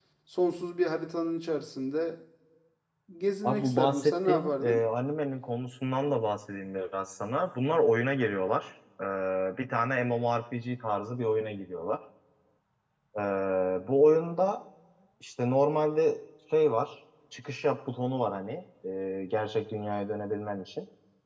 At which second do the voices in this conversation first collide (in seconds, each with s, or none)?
3.4 s